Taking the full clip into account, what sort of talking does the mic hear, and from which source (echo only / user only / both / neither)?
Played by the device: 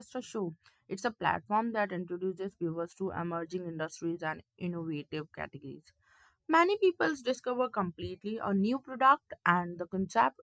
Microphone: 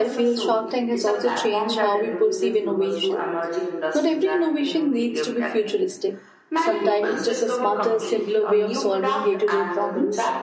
both